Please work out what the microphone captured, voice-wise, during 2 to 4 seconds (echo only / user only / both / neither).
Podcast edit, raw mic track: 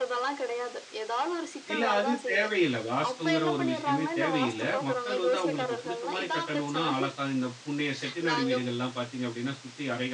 both